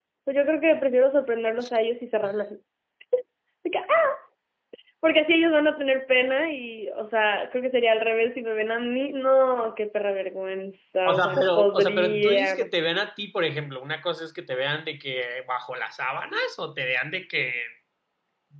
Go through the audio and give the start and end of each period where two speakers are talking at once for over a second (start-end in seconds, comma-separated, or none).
11.1-12.7